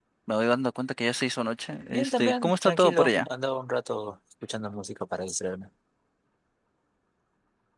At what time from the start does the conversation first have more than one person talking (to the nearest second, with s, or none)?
2 s